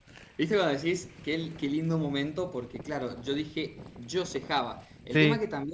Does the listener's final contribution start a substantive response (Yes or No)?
No